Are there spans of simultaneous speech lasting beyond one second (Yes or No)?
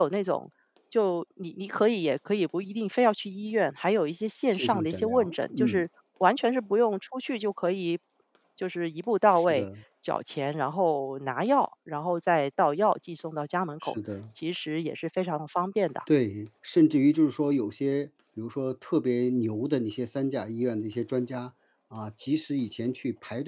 Yes